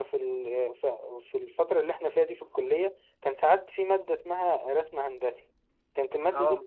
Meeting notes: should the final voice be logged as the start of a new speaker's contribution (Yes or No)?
No